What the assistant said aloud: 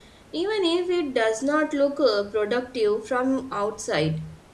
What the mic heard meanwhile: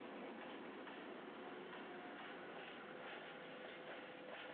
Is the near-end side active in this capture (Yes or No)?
No